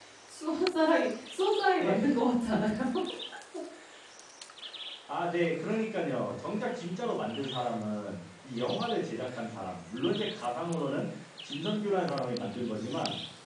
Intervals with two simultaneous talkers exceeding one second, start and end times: none

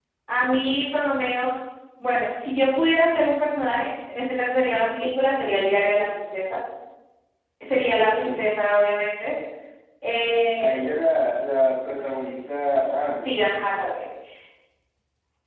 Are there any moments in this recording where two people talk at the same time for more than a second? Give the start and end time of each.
none

